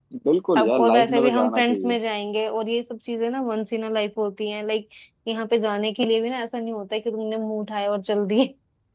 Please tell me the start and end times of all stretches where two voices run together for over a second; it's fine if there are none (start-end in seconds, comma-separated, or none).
0.6-2.0